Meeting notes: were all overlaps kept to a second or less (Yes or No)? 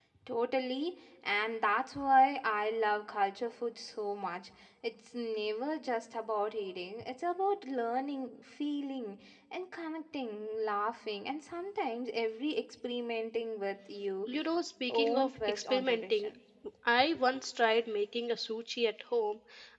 No